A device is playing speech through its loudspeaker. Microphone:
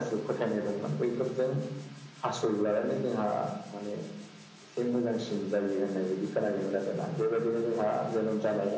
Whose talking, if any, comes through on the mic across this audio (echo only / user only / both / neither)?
echo only